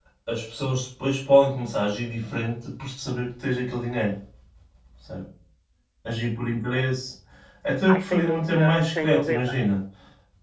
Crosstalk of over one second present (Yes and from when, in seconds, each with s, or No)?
Yes, from 7.9 s